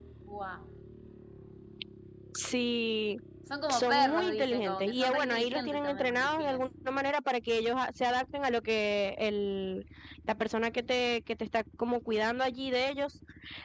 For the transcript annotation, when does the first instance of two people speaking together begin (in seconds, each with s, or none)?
3.7 s